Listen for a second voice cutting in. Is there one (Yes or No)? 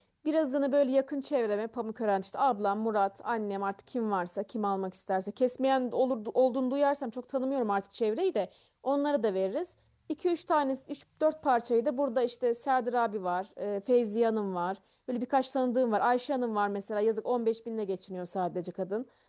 No